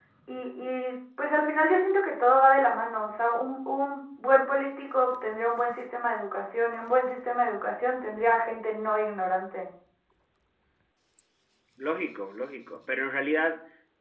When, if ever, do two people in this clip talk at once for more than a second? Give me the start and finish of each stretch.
none

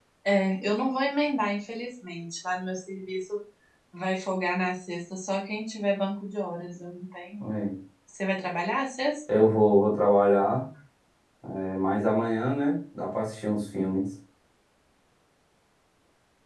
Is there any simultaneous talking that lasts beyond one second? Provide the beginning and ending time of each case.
none

